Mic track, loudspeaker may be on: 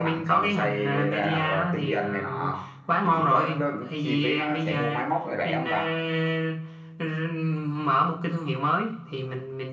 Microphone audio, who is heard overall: echo only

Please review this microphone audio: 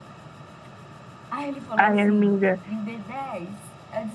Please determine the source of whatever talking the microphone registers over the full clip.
both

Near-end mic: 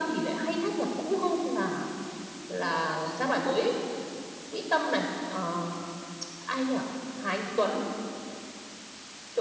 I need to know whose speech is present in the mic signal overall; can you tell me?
echo only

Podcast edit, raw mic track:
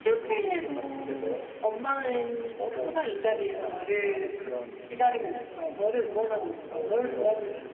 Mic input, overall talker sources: echo only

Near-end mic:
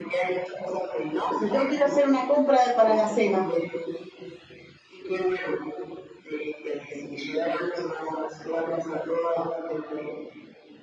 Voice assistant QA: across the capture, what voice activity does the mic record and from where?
both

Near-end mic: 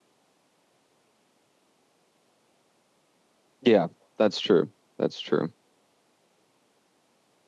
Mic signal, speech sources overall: user only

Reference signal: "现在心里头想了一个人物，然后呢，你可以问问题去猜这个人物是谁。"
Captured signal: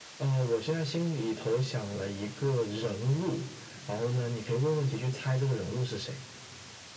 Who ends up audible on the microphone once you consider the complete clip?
echo only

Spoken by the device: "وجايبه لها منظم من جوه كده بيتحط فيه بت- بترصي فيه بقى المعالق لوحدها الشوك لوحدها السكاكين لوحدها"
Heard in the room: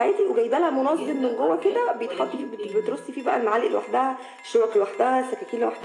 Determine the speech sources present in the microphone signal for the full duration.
both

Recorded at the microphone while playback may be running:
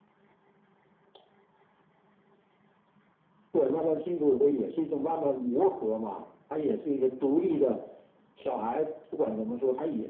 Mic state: echo only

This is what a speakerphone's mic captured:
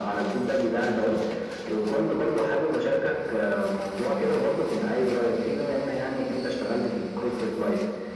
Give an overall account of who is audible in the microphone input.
echo only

